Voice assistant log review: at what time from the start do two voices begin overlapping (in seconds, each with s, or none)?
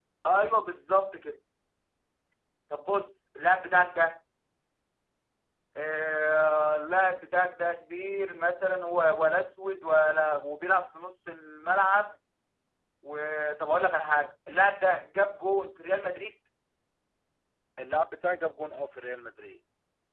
none